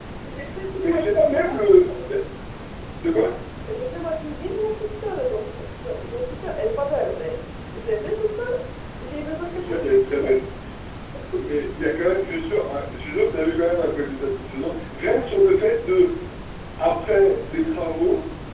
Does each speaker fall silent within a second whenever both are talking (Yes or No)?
No